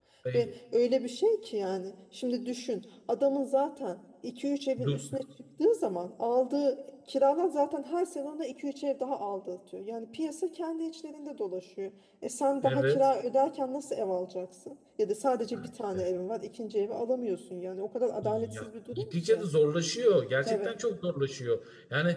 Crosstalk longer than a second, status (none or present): present